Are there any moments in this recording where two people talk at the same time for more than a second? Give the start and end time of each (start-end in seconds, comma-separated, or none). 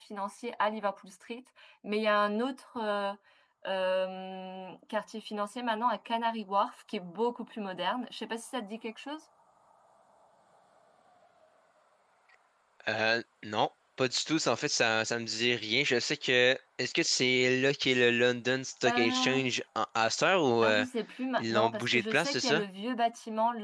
21.4-22.6